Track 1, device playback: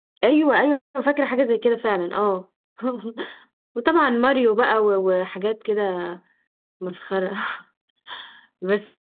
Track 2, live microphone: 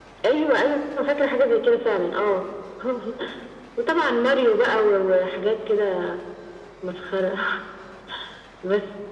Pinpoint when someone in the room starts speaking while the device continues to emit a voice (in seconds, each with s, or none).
none